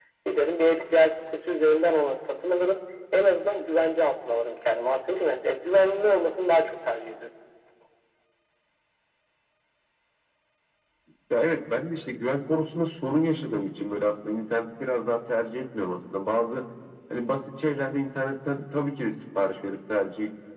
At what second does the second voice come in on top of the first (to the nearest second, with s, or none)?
none